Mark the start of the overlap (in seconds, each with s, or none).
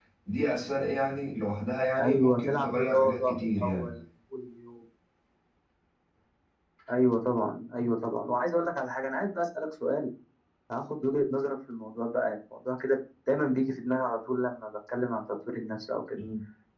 2.0 s